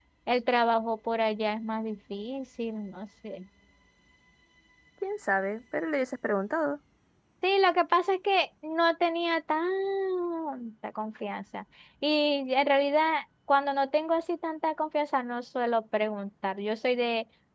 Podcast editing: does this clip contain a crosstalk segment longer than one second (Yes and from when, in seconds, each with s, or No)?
No